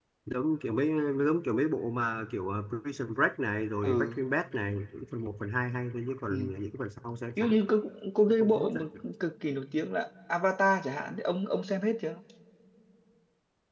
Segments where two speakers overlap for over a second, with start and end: none

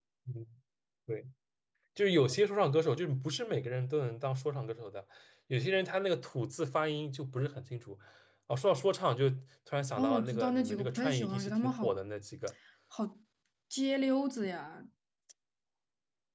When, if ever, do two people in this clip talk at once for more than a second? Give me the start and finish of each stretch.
10.0-11.9

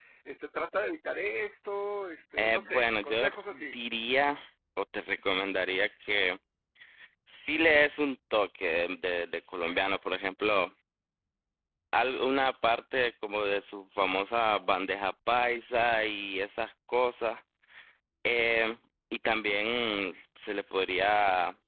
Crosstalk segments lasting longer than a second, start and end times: 2.4-3.7

